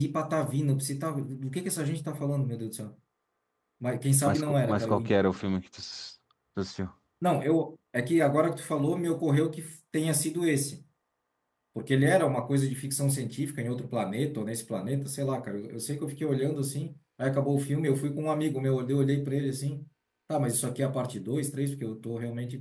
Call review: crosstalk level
present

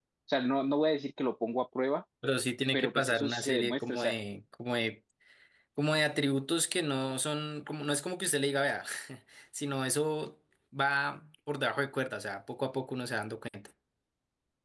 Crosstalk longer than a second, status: present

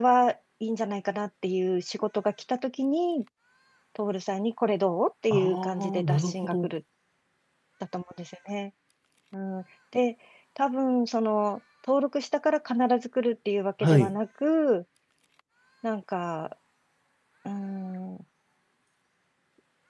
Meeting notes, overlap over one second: present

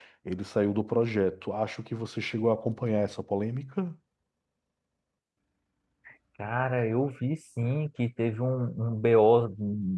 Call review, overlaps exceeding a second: none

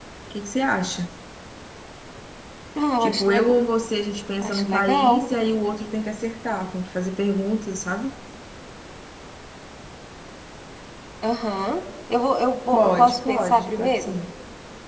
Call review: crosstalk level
present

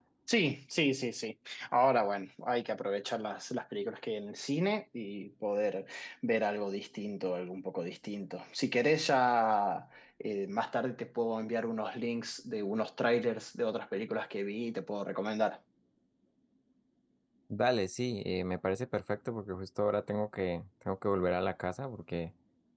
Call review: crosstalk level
none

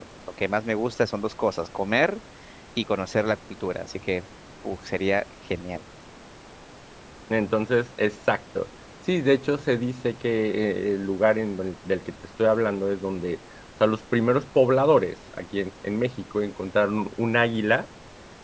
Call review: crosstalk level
none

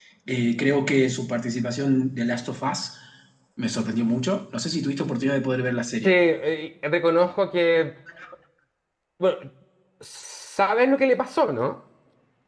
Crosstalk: none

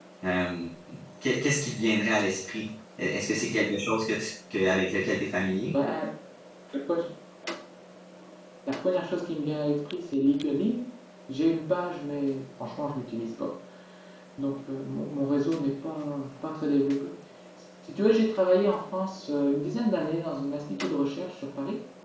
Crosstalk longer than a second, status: none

